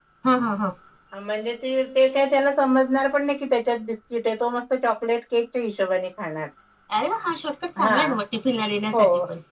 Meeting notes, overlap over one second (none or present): none